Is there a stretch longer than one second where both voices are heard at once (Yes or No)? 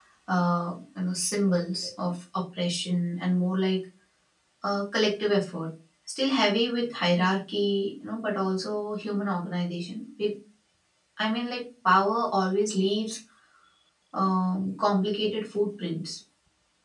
No